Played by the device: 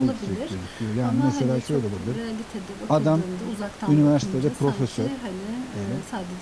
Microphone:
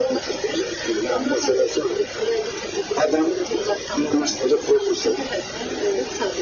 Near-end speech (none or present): none